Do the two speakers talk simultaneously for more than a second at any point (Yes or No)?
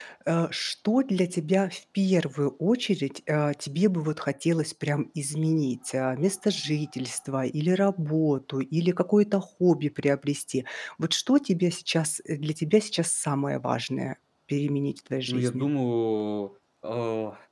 No